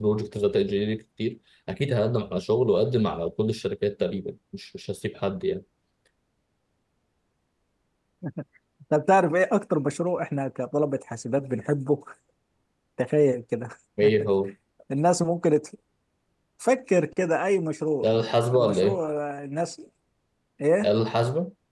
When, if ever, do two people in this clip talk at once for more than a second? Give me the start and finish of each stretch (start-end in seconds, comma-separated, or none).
none